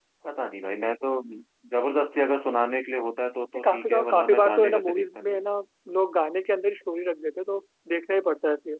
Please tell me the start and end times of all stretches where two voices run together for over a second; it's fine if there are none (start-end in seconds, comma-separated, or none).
3.5-5.4